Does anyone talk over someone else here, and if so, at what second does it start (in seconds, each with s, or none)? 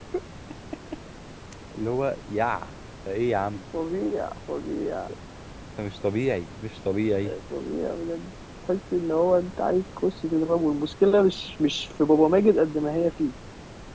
none